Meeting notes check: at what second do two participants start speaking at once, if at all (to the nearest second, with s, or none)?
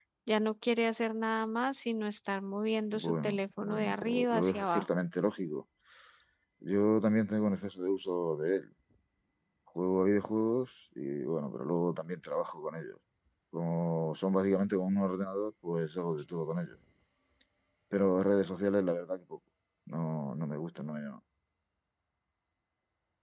3 s